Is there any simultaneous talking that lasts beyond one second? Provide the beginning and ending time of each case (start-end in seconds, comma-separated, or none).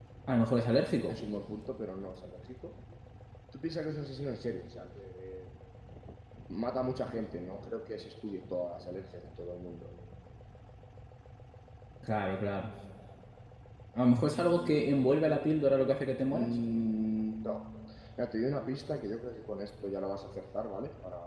none